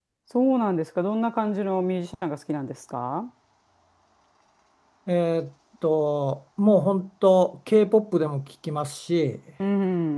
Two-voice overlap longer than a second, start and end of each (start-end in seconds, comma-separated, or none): none